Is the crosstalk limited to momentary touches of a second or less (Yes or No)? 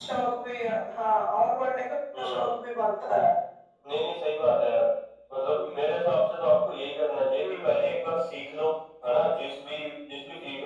Yes